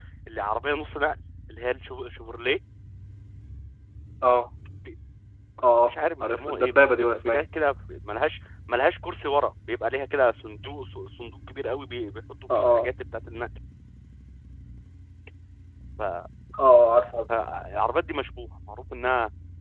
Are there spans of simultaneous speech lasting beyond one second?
Yes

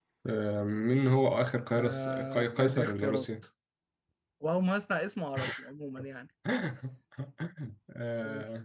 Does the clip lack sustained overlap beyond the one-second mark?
No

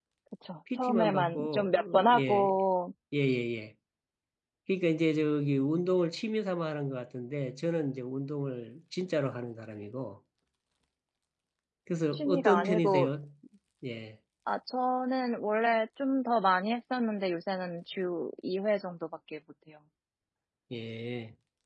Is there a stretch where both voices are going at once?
Yes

